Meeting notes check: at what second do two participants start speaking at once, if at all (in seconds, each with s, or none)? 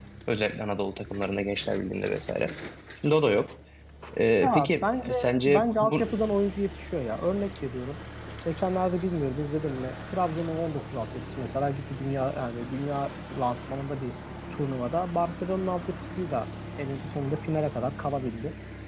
4.4 s